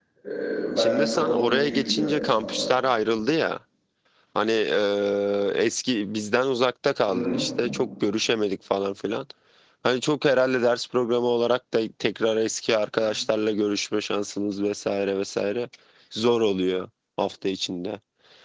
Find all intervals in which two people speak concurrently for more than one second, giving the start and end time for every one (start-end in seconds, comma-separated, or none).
0.8-2.7